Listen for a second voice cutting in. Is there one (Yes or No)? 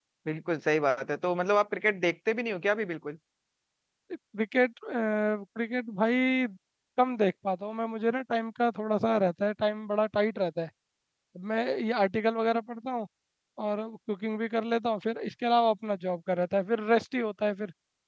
No